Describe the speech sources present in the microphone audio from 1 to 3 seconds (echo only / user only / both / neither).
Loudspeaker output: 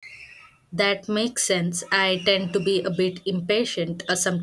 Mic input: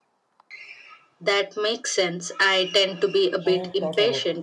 echo only